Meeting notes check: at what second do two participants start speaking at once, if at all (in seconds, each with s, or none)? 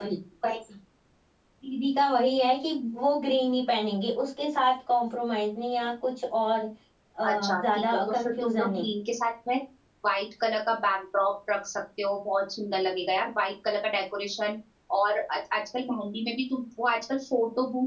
7.3 s